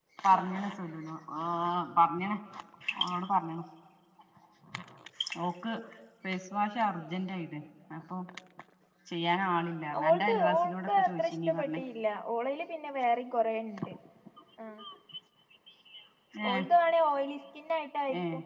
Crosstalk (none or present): present